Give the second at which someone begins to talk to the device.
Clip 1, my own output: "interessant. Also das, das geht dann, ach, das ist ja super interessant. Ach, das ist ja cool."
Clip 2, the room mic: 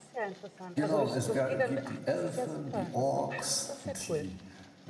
1 s

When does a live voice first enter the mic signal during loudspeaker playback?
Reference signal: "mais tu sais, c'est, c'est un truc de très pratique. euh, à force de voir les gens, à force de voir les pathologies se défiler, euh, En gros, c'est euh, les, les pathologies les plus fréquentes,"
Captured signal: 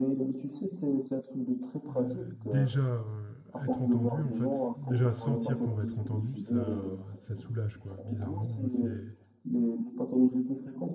2 s

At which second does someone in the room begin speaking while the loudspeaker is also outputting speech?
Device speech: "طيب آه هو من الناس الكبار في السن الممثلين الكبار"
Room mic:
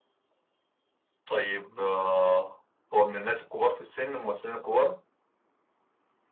none

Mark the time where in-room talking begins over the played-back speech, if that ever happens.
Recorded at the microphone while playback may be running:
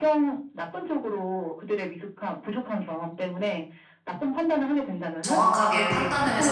5 s

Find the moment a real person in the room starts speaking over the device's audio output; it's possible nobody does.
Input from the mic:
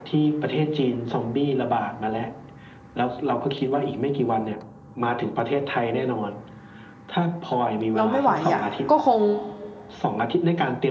8 s

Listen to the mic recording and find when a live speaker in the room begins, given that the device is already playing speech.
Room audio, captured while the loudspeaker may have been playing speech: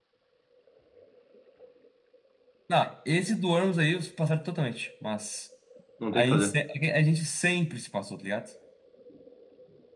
6 s

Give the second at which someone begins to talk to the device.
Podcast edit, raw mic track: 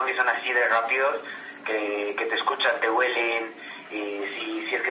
none

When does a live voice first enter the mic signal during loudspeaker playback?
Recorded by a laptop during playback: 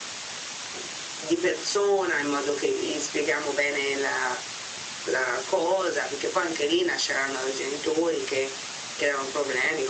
none

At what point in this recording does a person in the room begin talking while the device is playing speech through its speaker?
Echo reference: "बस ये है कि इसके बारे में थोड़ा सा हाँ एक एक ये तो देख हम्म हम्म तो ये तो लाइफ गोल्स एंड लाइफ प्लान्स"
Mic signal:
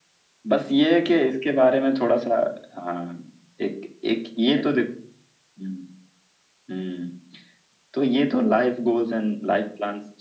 none

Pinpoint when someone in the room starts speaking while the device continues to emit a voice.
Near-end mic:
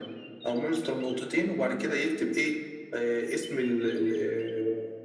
none

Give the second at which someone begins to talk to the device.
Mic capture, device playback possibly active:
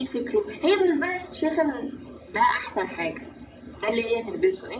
none

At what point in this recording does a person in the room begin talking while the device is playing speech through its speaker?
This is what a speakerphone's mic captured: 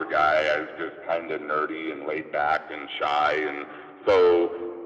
none

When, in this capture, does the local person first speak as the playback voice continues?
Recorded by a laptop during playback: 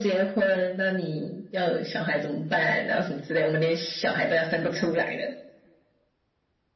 none

